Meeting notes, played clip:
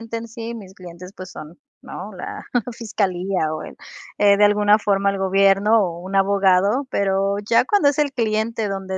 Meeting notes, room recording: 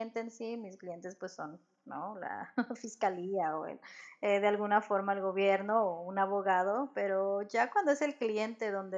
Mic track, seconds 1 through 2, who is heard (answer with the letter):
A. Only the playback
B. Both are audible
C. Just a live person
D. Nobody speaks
A